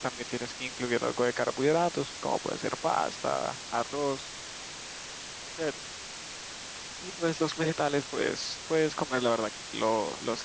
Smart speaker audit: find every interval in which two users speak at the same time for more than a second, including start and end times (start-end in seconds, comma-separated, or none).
none